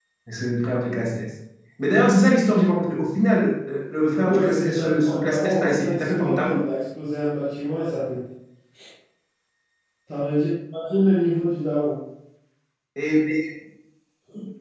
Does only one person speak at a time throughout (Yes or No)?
No